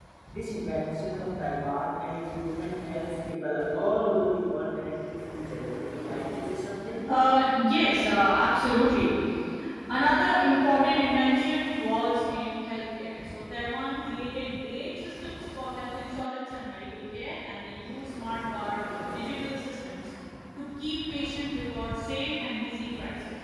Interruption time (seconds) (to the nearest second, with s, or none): none